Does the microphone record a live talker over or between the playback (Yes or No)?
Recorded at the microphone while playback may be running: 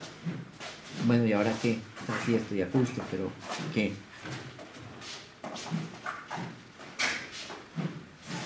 Yes